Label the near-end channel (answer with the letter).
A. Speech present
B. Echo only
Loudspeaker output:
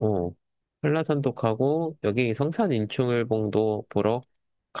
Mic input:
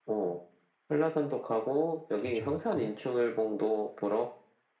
A